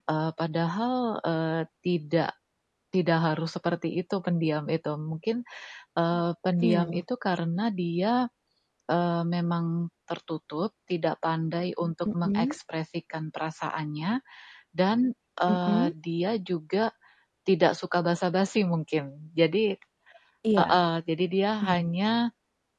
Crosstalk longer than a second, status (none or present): none